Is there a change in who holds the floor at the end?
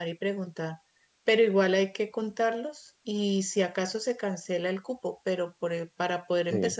No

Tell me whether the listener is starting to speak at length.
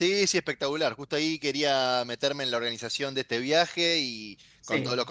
No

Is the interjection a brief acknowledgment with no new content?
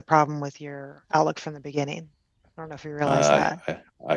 No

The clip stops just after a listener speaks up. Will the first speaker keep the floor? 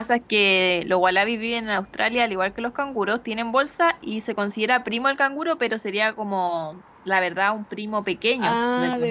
No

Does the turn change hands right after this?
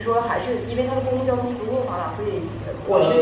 No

